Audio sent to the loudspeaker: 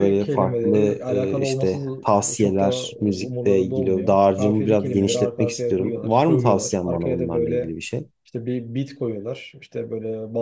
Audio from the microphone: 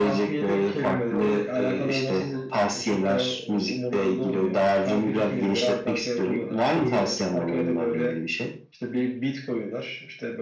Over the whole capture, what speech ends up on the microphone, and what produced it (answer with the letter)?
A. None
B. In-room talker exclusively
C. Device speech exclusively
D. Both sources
C